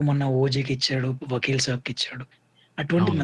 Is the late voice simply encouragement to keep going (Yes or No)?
Yes